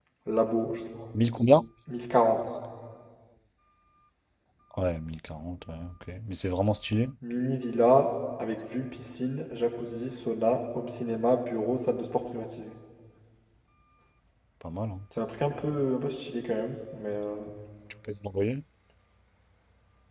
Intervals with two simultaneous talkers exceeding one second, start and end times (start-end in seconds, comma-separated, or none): none